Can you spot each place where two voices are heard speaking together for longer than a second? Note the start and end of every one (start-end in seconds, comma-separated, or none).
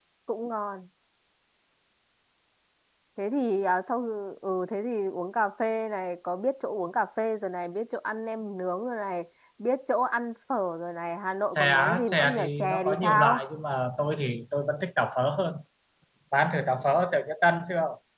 11.5-13.4